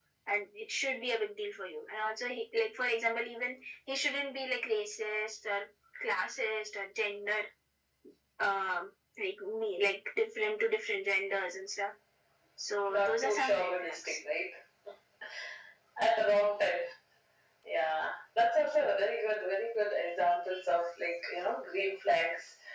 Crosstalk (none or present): present